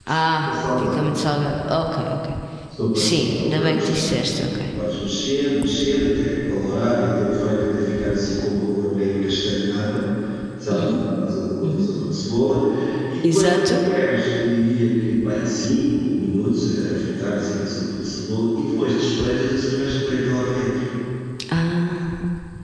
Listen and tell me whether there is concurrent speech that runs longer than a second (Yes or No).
Yes